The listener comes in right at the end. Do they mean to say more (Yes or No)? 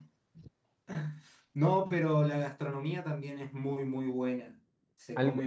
No